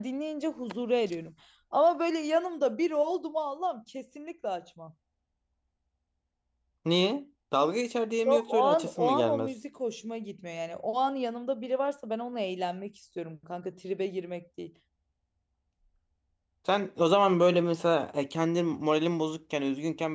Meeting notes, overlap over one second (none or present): present